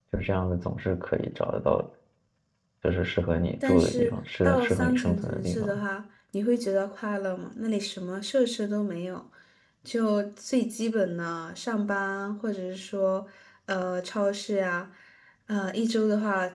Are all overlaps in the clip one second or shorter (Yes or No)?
No